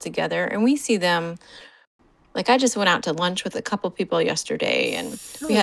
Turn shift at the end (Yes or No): No